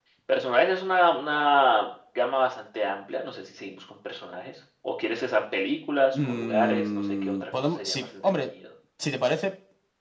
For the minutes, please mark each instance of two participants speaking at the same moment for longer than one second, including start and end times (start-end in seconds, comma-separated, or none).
6.1-8.5